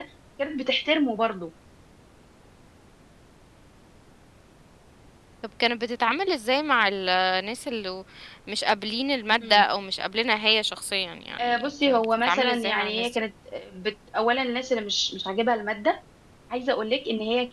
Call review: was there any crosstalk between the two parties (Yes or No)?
Yes